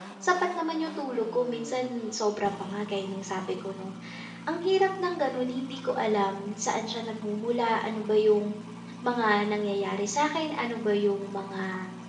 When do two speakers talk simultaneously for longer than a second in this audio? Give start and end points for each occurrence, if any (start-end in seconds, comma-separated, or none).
none